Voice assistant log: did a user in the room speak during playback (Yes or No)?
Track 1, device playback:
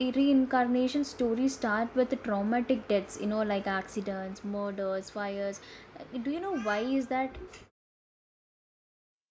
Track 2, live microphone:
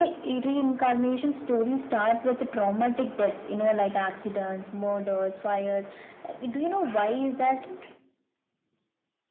No